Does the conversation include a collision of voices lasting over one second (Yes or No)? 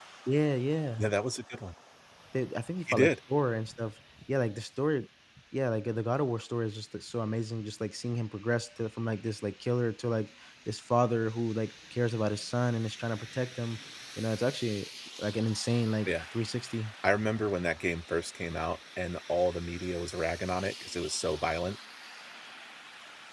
No